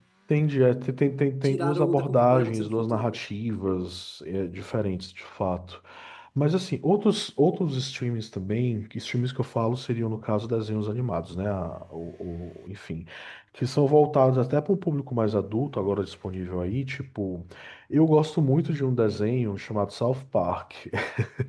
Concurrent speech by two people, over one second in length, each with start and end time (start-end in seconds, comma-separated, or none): 1.4-3.2